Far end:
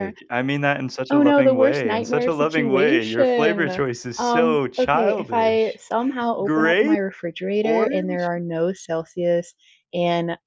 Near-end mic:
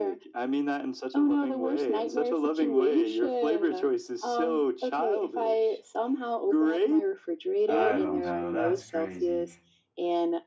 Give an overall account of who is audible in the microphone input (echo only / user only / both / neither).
both